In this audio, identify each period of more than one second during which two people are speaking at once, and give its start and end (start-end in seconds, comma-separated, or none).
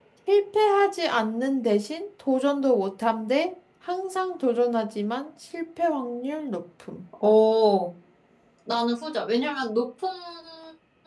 none